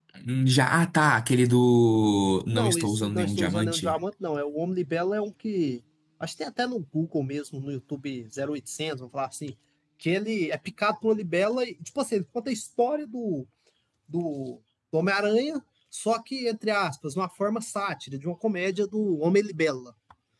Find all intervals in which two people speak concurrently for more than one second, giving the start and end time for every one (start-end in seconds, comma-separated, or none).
2.5-4.0